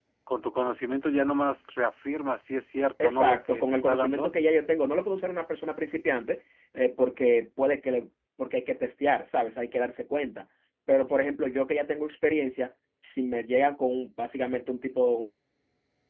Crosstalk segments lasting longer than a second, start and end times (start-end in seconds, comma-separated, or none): 3.0-4.3